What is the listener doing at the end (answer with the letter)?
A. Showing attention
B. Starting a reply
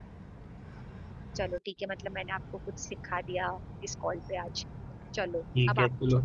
B